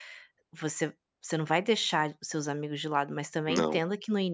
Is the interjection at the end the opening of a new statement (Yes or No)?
No